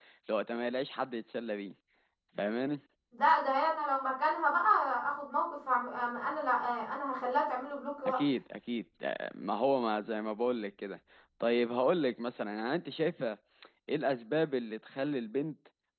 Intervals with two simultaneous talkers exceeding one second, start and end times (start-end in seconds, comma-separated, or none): none